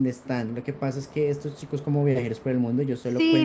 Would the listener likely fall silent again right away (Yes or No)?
No